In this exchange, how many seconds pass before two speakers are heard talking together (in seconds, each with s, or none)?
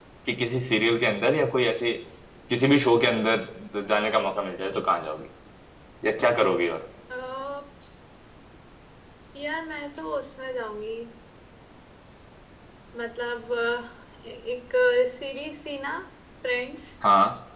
none